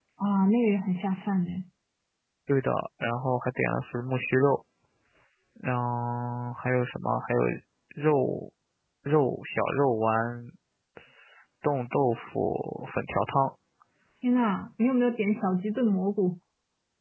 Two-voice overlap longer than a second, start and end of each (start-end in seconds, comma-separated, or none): none